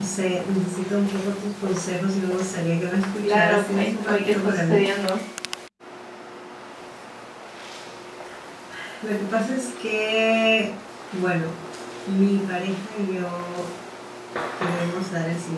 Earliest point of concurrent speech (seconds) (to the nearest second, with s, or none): 3 s